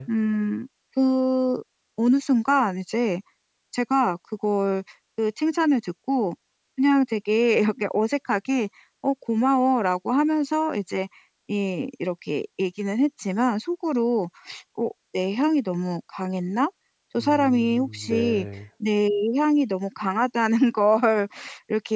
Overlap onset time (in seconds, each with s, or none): 17.2 s